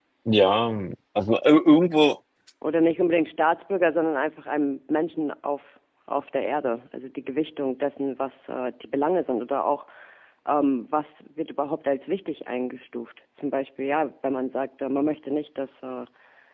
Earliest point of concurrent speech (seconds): none

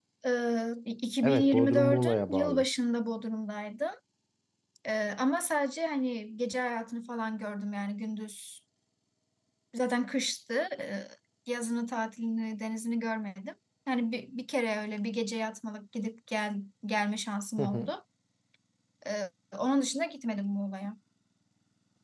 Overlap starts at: 1.2 s

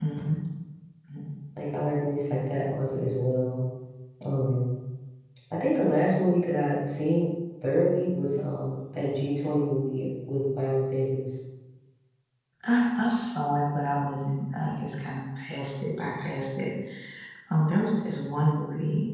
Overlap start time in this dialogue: none

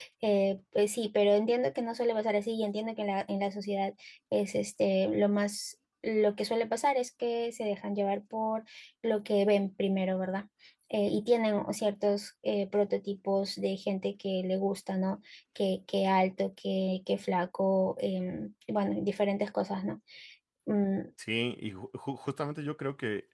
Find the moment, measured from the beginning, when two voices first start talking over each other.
none

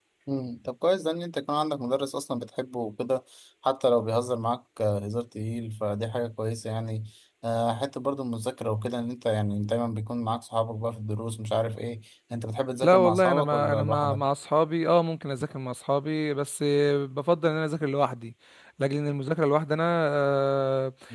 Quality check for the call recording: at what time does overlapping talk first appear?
12.8 s

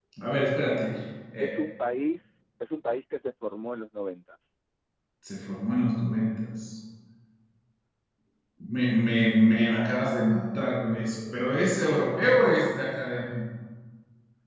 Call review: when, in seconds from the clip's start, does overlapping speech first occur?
none

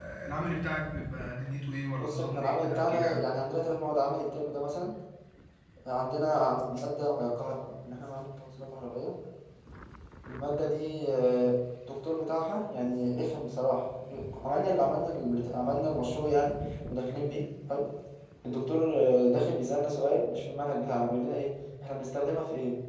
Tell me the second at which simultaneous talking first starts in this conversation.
2.0 s

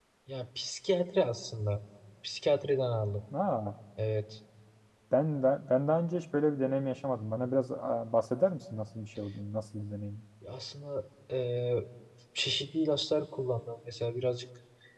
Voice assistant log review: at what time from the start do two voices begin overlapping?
none

